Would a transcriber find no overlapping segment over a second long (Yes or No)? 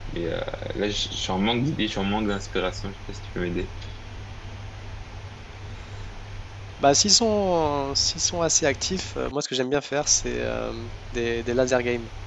Yes